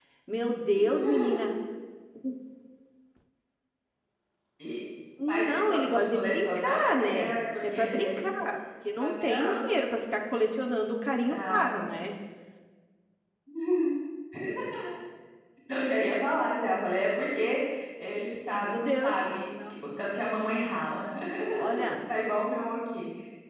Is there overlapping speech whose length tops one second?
Yes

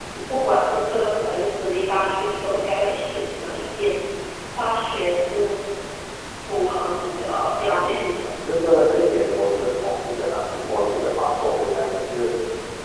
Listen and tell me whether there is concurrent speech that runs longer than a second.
No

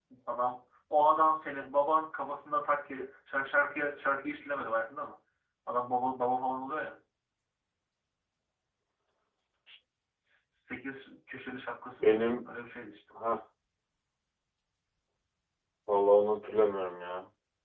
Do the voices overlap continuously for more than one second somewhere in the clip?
No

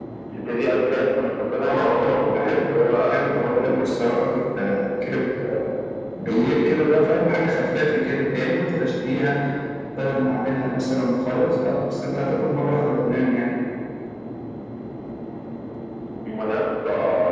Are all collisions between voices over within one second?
No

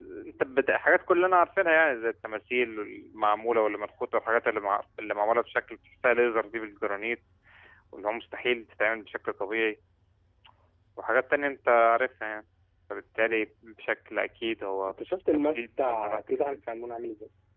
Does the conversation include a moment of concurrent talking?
Yes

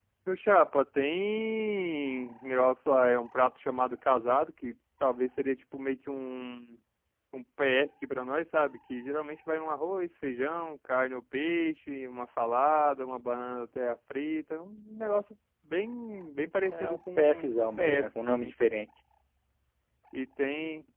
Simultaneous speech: Yes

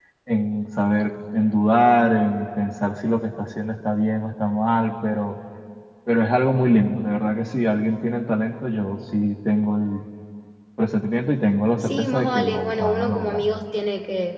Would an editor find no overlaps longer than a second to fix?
No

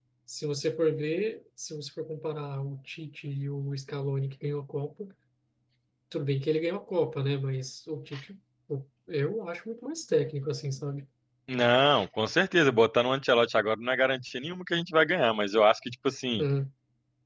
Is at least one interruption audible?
No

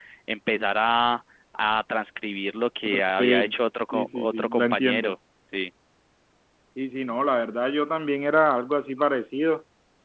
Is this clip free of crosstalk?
No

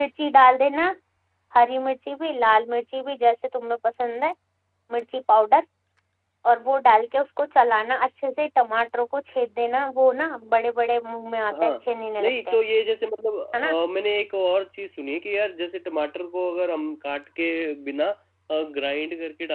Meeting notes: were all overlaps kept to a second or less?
Yes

